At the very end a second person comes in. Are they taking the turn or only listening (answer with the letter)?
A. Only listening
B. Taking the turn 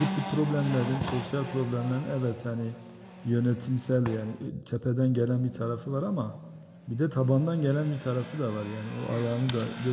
A